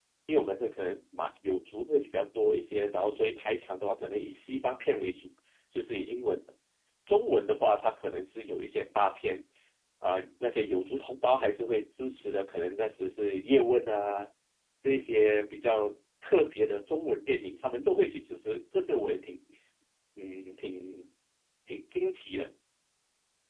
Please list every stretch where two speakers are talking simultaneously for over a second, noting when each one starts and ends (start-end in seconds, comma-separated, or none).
none